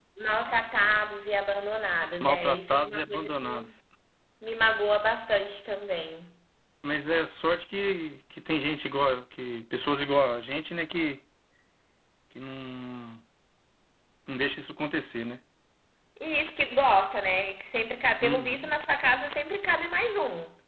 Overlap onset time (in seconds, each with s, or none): 2.2 s